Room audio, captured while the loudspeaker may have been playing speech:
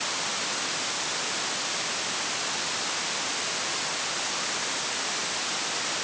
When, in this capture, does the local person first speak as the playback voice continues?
none

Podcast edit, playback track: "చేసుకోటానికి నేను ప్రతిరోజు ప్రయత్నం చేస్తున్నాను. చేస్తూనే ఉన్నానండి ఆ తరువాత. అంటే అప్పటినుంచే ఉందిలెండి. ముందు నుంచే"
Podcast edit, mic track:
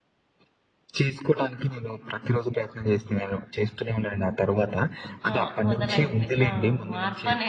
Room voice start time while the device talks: 5.3 s

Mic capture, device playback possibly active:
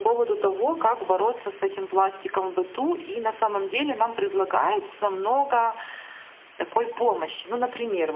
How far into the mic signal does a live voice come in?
none

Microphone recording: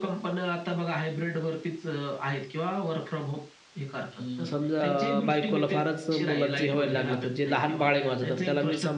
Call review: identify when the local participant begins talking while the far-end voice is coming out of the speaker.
4.0 s

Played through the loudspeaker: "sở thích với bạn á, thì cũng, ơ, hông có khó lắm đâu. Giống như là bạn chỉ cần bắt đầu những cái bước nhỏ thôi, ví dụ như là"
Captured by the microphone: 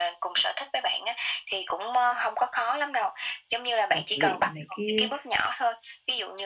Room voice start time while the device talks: 3.9 s

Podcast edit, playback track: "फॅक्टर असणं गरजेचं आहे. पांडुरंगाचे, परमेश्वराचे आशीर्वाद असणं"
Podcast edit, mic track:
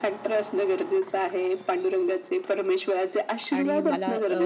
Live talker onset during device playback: 3.6 s

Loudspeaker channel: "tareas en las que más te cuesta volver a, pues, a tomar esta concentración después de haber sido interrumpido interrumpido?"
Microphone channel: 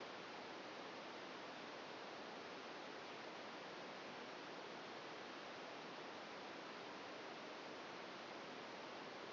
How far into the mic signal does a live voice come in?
none

